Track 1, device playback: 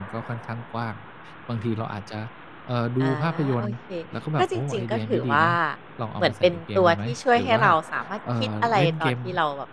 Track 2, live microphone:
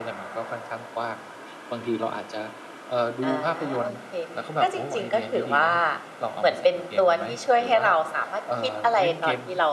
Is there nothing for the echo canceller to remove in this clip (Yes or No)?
No